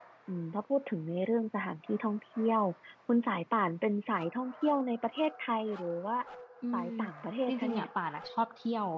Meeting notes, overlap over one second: none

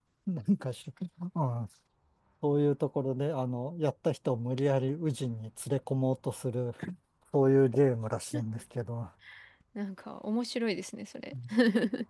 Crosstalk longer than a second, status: none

